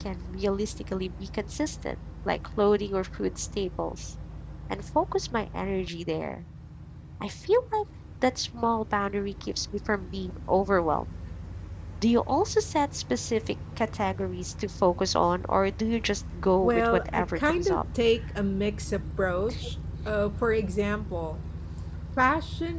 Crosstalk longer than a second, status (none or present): present